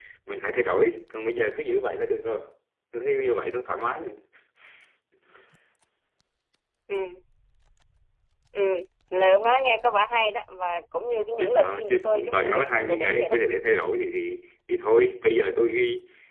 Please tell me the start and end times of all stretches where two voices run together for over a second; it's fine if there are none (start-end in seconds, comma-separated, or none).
11.4-13.3